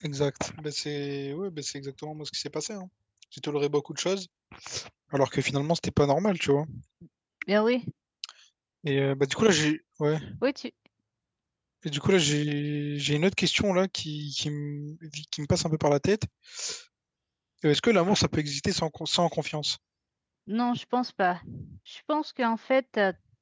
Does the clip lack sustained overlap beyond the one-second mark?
Yes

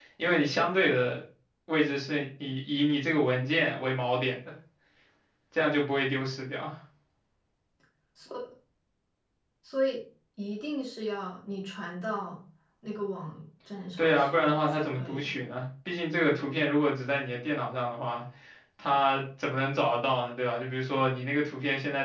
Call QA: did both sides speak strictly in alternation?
No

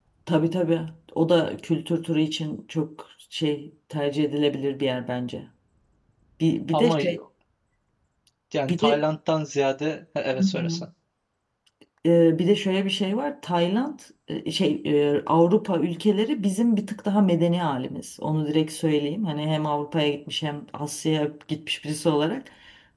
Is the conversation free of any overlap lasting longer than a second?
Yes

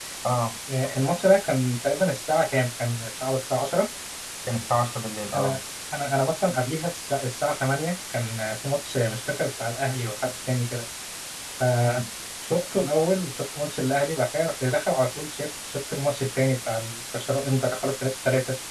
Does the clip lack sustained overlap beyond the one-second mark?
Yes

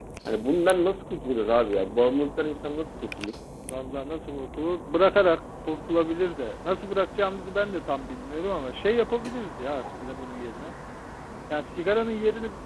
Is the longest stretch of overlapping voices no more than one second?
Yes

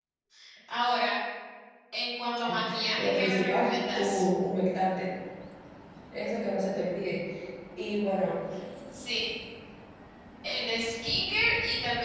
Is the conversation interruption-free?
No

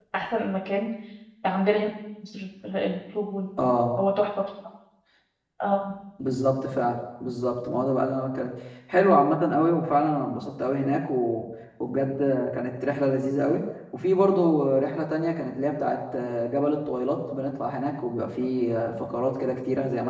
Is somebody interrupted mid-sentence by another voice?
No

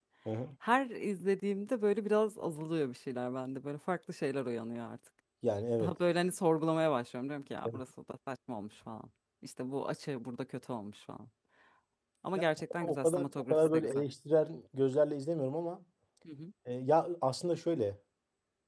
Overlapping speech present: Yes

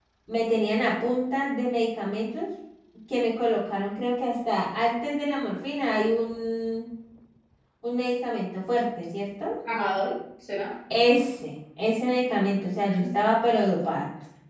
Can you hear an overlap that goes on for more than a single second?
No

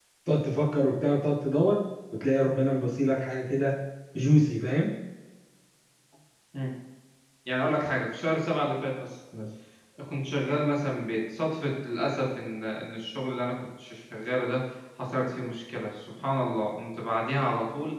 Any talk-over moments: No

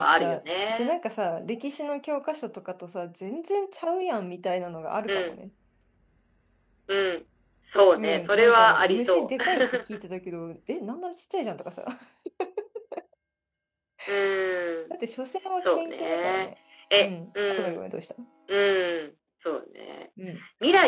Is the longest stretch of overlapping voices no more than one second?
No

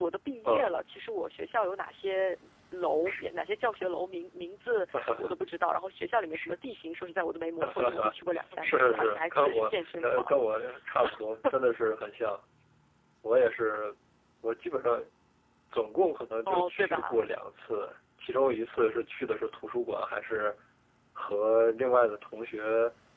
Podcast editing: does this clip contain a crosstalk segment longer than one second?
Yes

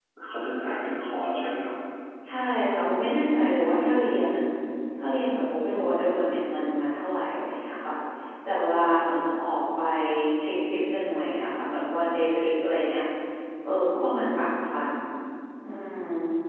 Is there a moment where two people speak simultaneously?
No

